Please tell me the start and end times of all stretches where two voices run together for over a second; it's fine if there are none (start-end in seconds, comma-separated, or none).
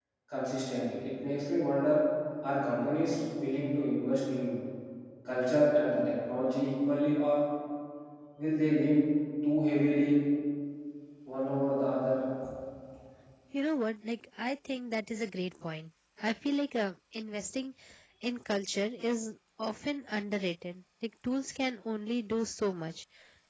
none